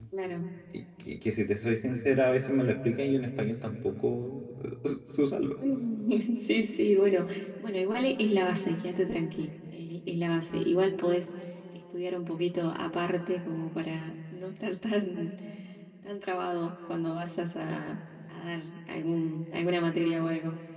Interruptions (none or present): none